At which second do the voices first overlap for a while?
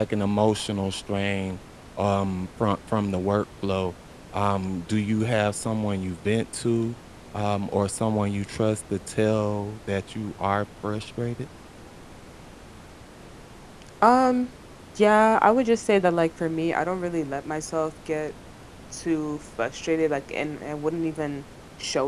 none

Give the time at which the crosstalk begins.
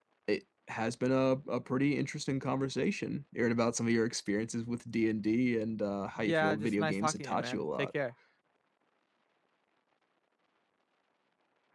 6.2 s

